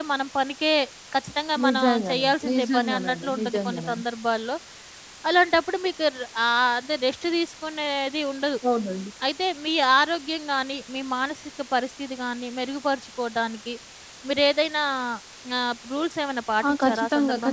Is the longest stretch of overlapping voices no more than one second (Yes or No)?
No